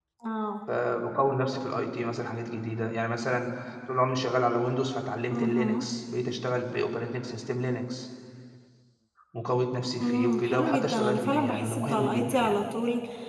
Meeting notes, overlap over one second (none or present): present